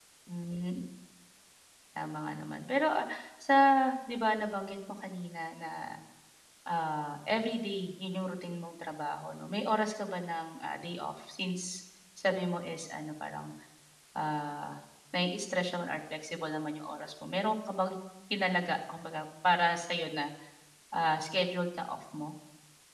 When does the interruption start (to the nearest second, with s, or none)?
none